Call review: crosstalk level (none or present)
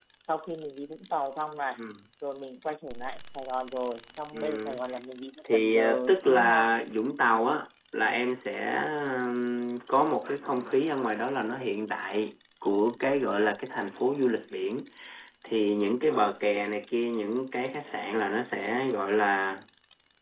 present